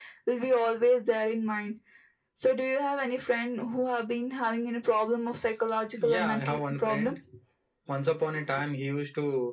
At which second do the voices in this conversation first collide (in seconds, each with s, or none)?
6.0 s